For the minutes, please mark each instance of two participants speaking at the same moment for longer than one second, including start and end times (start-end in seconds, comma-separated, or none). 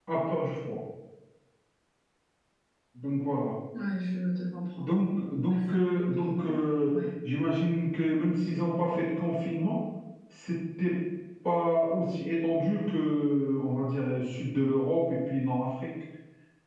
5.5-7.0